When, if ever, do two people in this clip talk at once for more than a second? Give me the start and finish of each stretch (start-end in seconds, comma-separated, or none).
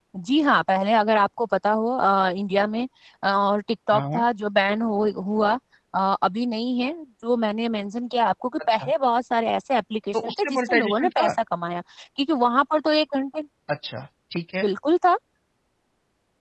10.1-11.3